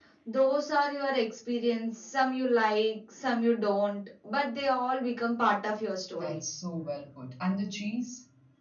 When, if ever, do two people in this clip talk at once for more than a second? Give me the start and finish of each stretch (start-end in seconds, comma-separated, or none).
none